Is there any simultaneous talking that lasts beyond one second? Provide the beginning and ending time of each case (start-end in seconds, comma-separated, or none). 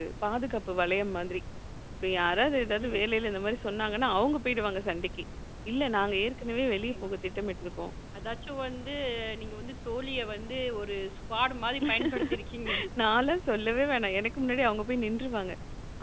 none